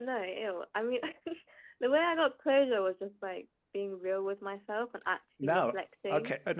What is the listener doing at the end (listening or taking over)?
taking over